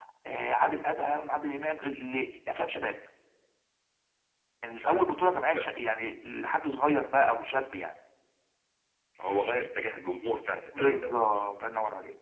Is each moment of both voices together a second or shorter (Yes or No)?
Yes